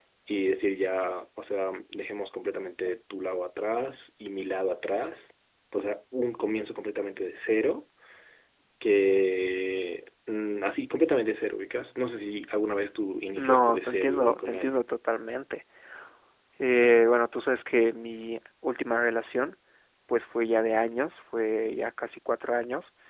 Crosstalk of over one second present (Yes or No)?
Yes